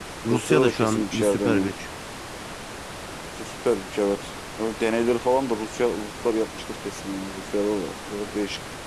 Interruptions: present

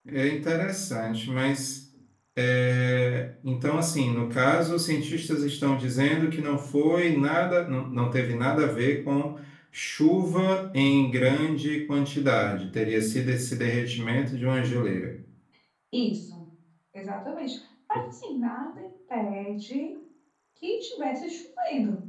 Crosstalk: none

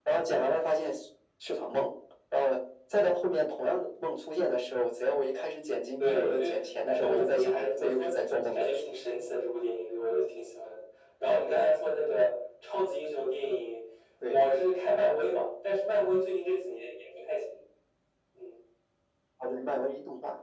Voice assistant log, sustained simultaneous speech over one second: present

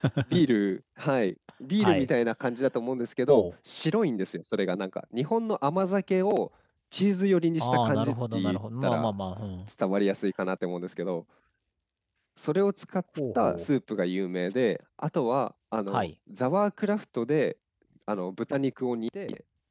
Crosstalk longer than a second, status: present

